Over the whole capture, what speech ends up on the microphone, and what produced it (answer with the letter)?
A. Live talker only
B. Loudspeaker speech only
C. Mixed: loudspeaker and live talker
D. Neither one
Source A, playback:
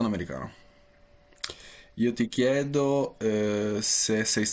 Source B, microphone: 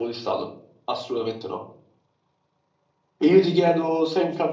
A